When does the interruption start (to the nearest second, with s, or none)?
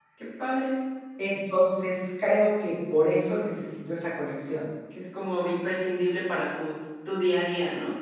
none